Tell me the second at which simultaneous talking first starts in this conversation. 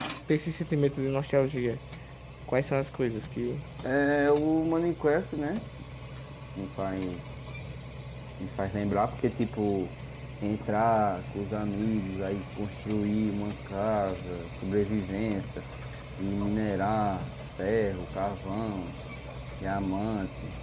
none

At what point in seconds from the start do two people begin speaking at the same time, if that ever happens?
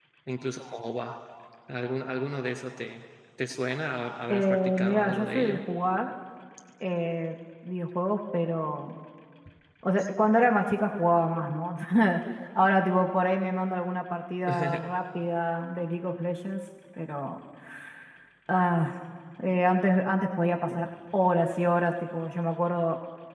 4.3 s

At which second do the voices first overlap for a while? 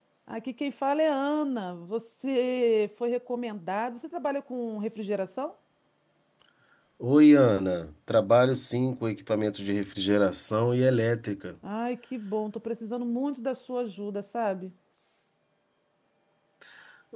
none

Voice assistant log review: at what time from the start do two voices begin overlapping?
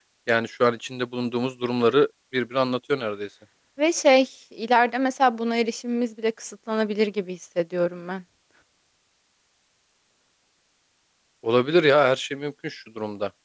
none

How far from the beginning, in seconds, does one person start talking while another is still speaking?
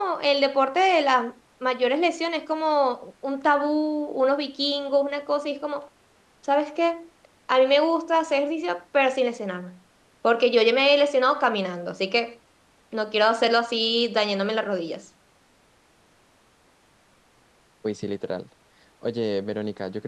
none

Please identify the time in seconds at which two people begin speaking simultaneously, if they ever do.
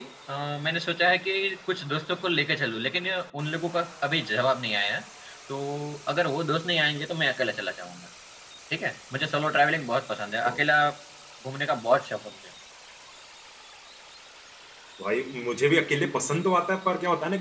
none

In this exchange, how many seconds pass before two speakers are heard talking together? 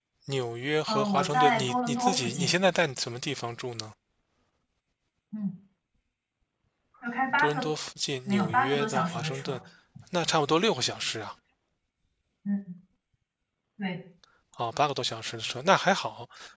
0.9 s

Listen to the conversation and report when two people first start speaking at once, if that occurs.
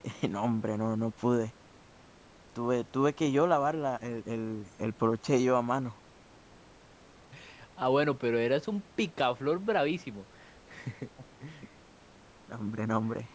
none

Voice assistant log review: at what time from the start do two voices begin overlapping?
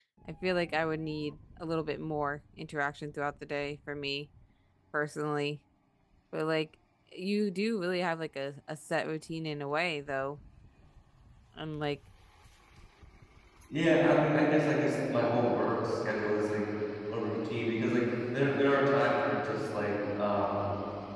none

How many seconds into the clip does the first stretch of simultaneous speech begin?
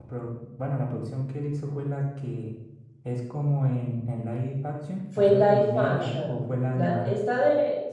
5.2 s

